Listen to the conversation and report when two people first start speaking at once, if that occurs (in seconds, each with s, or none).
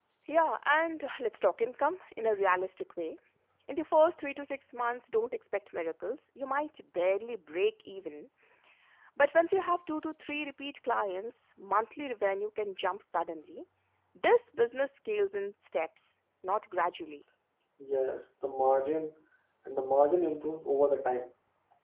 none